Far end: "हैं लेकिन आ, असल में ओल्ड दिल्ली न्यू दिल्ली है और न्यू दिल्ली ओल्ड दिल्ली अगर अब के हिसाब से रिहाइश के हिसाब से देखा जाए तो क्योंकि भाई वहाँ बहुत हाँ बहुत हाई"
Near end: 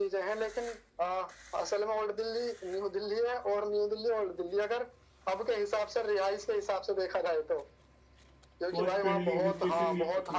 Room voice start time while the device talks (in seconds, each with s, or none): 8.7 s